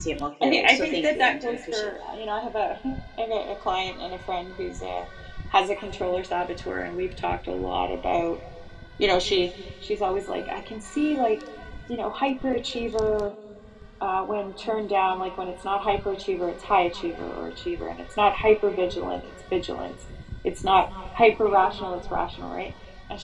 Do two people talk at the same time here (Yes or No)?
Yes